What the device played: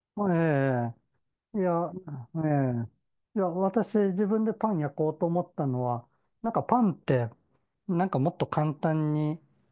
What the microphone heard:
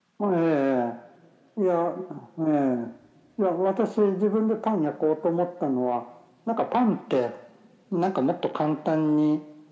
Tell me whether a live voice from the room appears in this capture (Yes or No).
No